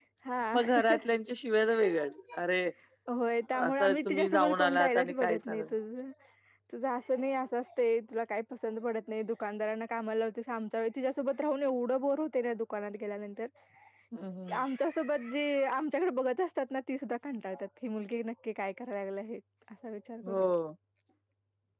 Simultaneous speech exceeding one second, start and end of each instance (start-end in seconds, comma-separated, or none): 3.7-5.7